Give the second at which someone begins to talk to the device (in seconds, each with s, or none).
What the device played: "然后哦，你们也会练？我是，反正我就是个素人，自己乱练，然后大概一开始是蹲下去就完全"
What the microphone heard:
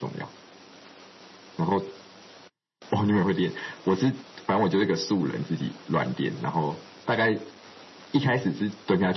none